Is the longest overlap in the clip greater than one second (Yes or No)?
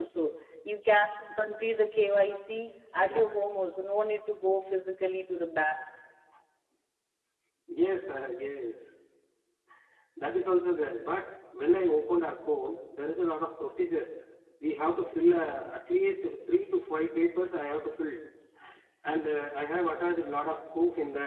No